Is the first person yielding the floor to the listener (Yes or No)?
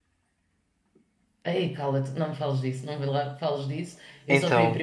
No